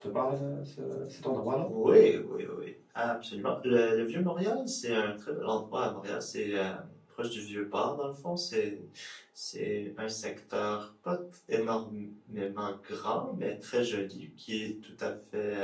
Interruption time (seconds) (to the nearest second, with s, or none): none